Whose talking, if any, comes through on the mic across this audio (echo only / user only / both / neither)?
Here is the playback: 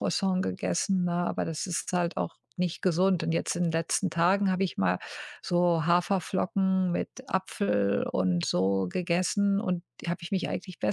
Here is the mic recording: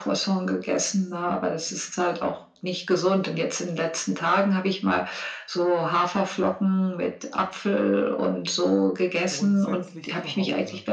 both